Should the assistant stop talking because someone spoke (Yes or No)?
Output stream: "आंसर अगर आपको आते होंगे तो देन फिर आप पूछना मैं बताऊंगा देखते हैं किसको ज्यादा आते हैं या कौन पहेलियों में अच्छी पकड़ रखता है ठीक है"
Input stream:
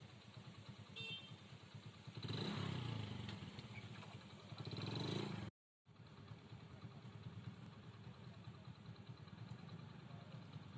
No